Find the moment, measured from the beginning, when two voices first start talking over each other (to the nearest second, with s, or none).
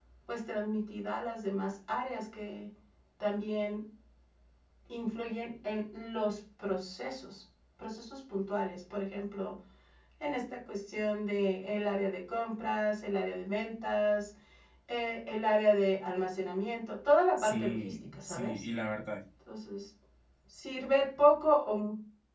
17 s